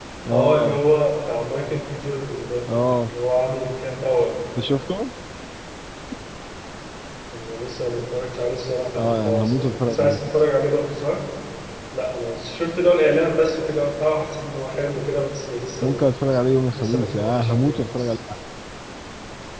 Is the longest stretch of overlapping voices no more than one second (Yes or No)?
No